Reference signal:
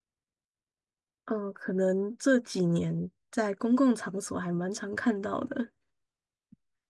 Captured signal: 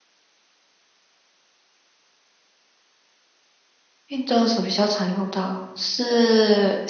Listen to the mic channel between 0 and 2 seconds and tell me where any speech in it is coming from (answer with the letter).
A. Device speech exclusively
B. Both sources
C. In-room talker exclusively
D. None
D